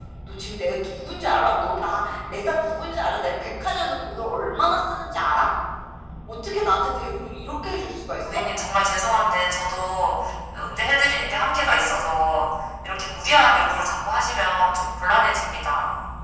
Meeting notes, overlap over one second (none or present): none